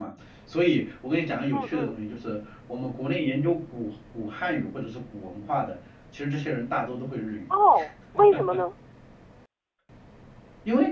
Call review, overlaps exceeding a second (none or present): none